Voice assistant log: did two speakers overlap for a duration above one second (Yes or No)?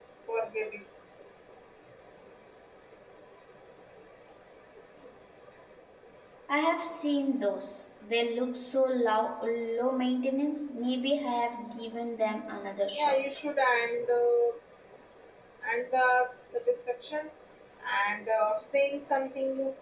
No